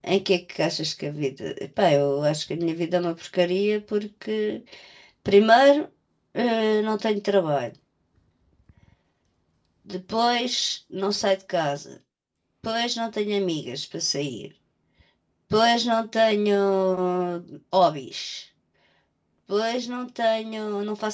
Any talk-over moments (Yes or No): No